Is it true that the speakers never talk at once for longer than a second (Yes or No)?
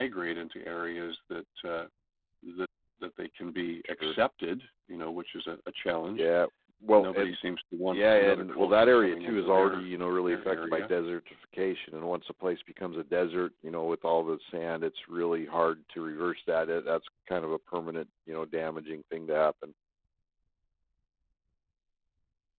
No